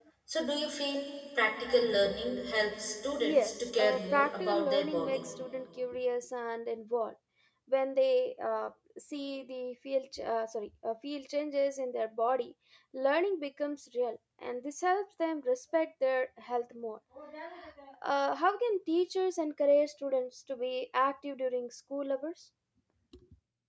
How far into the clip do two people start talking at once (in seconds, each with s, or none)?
3.2 s